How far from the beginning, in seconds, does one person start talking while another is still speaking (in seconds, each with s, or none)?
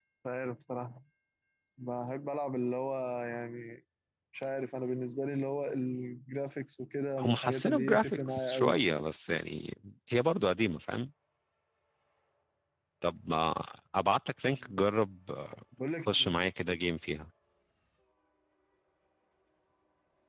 7.2 s